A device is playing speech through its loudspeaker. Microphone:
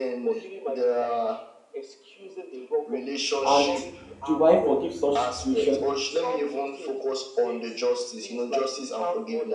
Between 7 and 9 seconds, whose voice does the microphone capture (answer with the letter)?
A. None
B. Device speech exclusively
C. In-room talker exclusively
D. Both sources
B